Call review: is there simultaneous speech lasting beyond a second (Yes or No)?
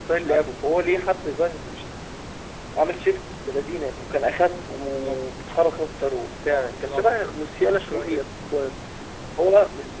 Yes